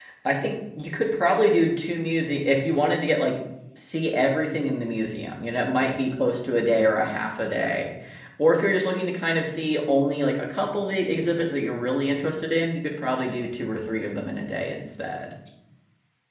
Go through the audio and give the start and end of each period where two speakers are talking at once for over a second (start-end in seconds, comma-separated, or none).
none